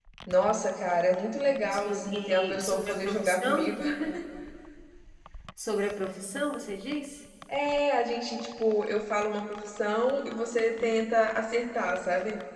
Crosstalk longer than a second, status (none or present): present